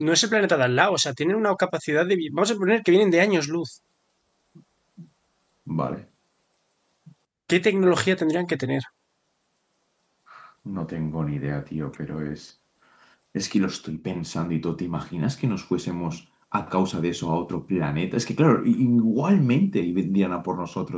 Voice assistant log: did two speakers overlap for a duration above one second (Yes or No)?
No